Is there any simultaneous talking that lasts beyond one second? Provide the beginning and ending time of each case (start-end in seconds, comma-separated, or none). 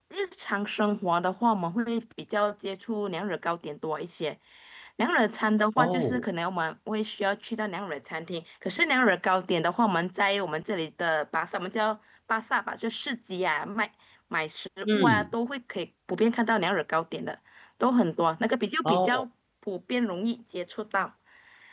none